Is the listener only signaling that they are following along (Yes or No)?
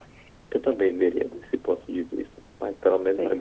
Yes